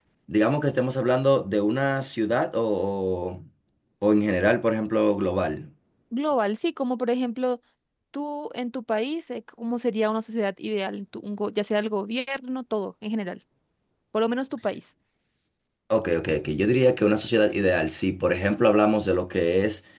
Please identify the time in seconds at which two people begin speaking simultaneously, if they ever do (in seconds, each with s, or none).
none